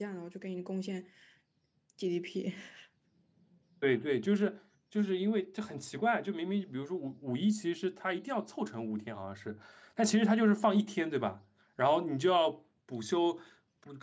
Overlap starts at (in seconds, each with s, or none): none